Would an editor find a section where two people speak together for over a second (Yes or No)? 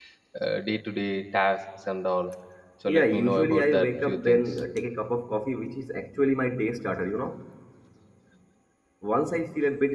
Yes